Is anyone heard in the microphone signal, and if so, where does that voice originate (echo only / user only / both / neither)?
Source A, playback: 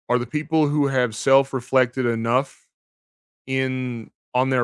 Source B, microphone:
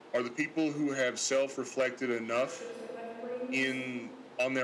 both